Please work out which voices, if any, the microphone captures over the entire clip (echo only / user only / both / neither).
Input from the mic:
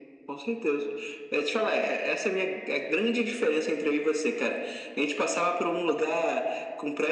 echo only